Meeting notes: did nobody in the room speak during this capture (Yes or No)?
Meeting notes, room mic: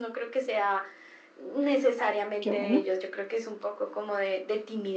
No